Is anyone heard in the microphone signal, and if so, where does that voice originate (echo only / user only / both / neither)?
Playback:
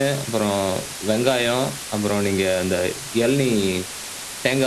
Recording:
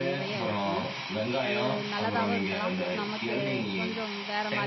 both